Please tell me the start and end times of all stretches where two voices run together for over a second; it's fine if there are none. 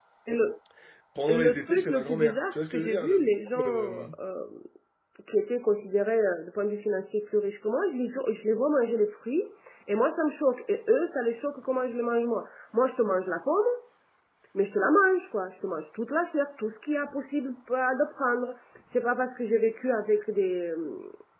1.3-3.1

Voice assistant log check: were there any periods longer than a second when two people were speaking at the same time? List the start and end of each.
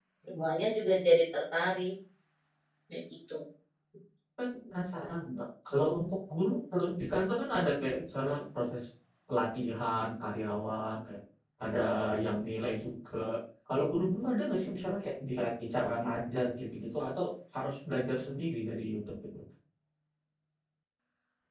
none

